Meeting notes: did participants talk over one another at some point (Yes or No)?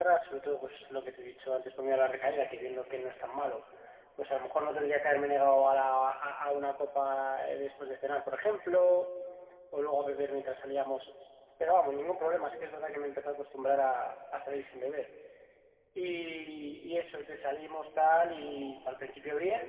No